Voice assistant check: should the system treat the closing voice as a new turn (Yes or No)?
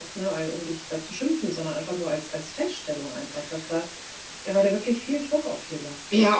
Yes